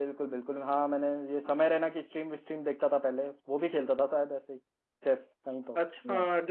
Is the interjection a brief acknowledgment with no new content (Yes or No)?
No